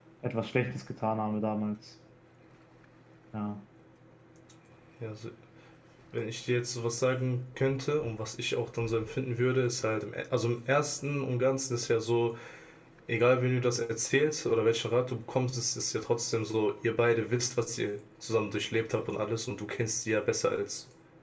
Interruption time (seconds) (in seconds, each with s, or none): none